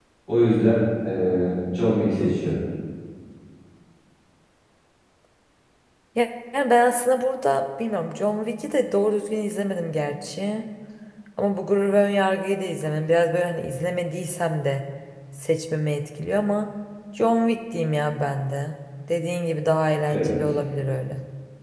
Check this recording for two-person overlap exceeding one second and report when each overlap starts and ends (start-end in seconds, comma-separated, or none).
none